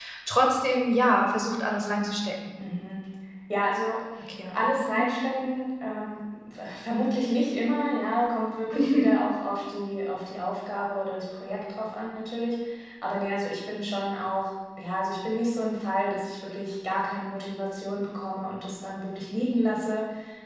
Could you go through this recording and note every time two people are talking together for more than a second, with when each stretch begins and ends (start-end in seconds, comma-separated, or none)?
none